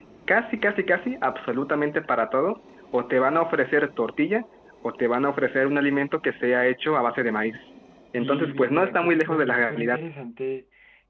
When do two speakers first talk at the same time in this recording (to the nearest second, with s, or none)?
8 s